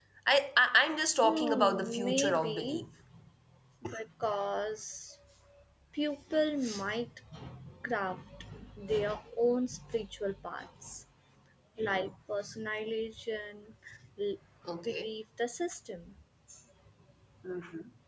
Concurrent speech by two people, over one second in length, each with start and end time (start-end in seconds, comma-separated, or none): 1.2-2.8